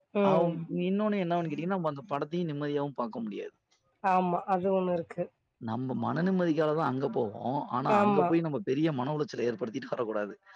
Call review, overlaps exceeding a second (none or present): none